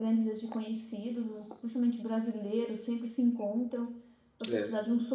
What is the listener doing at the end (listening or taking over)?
listening